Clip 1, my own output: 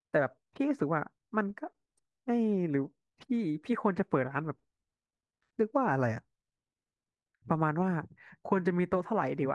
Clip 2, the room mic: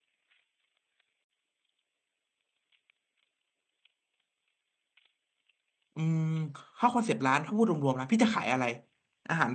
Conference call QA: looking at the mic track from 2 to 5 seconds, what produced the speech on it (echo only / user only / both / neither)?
neither